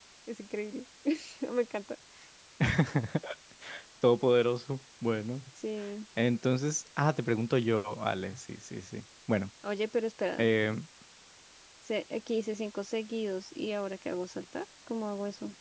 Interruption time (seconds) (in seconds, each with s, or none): none